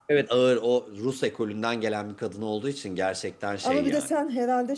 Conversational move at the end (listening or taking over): taking over